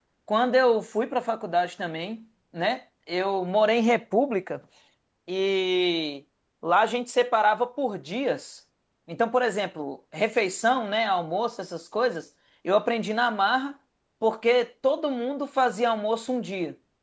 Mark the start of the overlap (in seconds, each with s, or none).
none